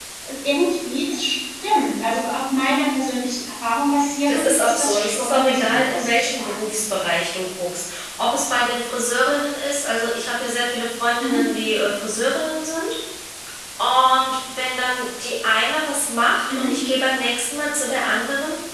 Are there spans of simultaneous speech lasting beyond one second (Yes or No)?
Yes